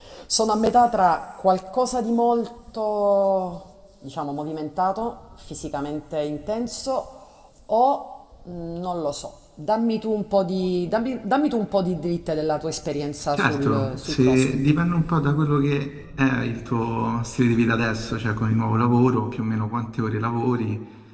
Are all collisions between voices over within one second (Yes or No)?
No